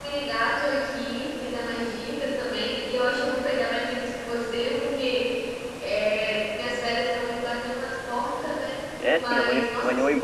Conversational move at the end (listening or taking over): taking over